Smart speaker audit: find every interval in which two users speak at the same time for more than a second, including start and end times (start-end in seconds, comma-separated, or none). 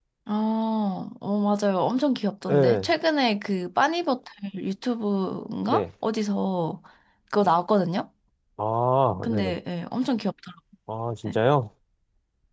none